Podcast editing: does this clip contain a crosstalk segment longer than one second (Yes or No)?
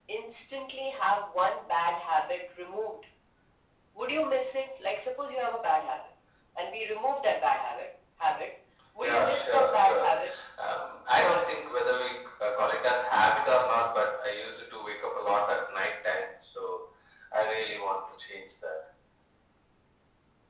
Yes